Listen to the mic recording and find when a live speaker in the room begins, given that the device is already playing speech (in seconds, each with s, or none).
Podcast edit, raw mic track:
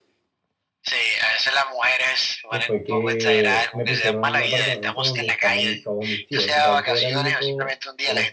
2.5 s